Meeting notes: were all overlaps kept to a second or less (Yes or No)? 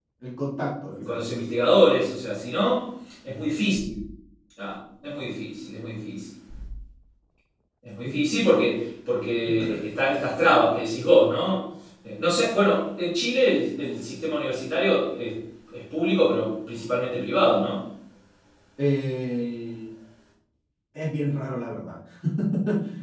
Yes